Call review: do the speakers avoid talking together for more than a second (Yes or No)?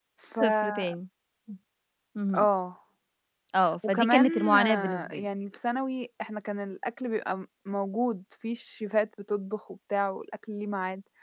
No